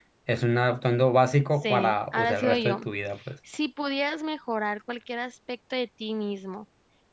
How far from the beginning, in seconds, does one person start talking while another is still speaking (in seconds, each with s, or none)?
1.6 s